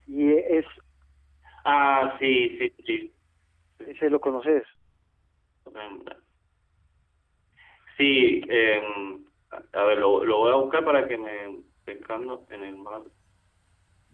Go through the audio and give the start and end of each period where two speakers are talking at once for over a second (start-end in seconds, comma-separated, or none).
none